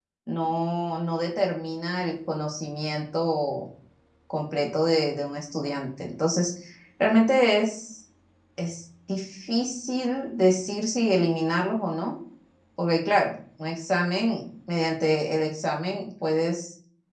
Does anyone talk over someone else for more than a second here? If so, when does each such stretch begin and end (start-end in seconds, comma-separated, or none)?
none